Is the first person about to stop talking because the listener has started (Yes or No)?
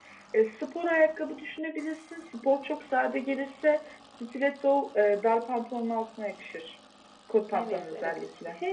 Yes